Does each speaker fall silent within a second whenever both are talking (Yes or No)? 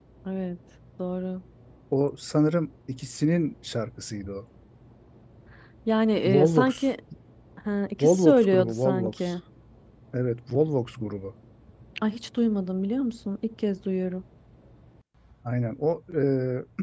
No